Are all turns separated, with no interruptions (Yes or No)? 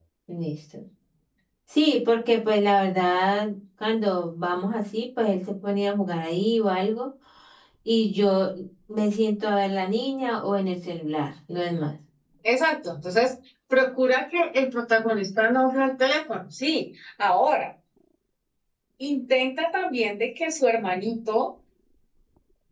Yes